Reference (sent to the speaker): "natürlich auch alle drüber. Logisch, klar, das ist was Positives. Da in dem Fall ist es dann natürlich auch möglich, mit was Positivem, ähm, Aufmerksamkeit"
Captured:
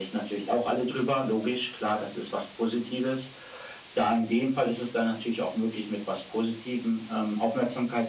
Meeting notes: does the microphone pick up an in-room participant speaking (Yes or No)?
No